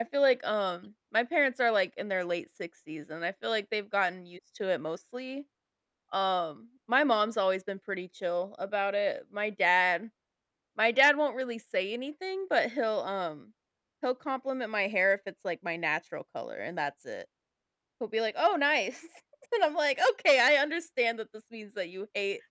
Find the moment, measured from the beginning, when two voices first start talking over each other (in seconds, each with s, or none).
none